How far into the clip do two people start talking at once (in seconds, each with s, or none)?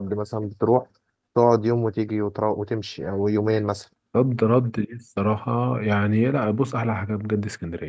none